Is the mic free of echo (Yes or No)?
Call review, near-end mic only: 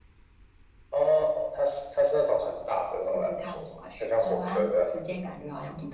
No